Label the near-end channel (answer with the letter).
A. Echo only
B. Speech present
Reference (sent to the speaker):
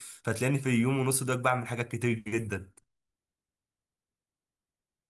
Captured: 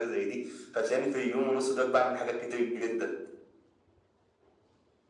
A